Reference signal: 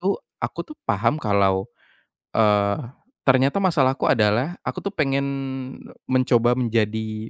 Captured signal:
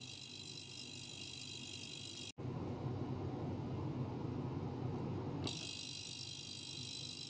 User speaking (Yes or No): No